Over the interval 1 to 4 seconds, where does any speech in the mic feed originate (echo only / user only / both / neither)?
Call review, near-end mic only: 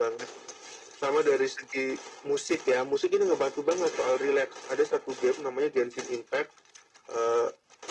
echo only